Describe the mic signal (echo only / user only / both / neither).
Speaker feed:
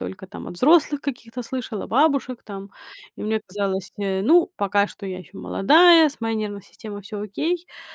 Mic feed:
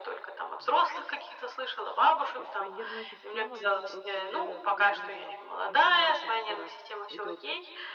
both